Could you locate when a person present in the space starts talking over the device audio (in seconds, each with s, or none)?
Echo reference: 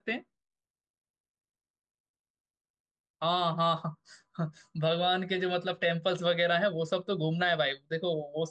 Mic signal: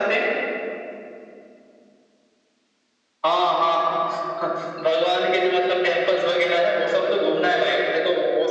none